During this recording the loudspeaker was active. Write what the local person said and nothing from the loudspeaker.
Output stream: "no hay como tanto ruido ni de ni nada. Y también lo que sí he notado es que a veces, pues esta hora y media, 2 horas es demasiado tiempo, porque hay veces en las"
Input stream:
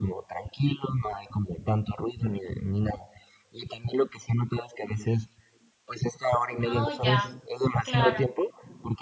Oh, ya, claro,

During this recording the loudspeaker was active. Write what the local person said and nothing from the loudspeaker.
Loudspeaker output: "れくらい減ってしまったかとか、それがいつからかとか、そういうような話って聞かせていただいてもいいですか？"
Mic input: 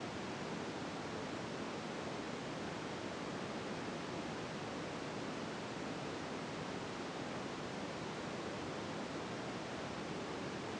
none

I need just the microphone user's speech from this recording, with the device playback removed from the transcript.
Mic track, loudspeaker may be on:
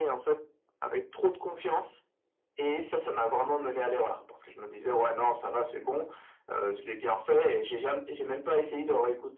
none

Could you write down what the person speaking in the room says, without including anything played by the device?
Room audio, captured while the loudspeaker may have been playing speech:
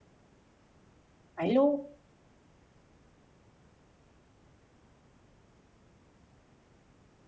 vậy luôn,

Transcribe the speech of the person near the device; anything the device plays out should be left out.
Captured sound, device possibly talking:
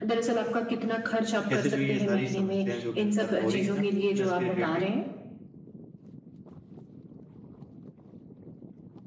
कैसे जो ये सारी समस्याएँ जो मेरे साथ हो रही है ना, फ़िटनेस के रिलेटेड,

